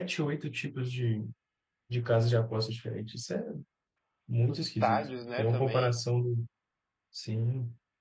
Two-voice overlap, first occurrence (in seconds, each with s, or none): 4.5 s